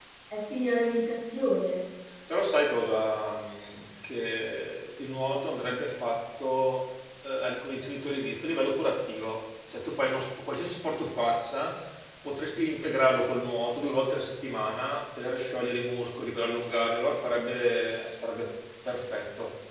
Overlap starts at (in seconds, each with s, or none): none